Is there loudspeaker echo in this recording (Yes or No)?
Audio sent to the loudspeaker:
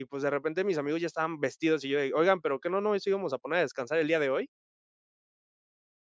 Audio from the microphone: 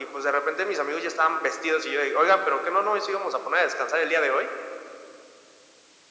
Yes